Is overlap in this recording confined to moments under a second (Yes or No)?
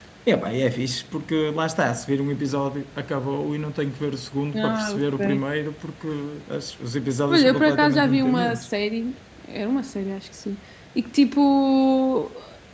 No